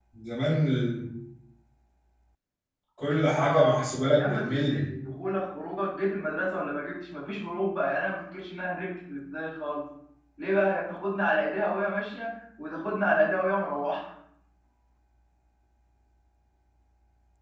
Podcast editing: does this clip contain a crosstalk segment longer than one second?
Yes, from 3.0 s

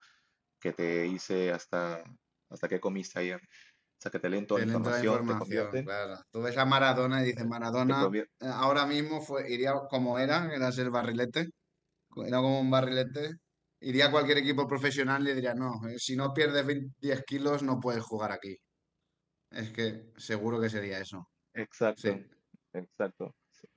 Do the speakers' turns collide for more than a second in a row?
Yes, from 4.5 s

